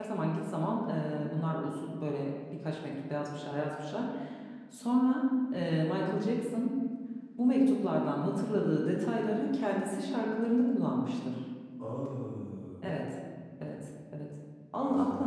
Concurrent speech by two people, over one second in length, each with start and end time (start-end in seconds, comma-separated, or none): none